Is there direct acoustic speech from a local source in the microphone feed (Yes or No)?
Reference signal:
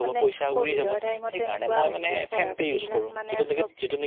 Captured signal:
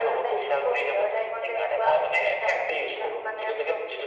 No